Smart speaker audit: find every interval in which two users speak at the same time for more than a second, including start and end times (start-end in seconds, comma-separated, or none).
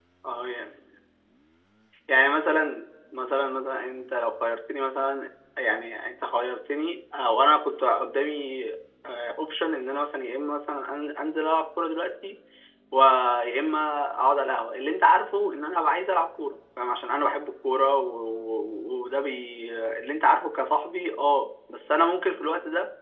none